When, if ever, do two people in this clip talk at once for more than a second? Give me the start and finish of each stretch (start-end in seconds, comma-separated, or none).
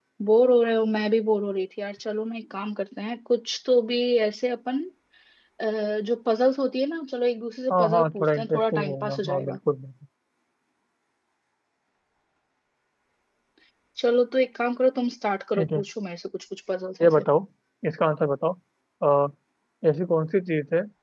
7.7-9.6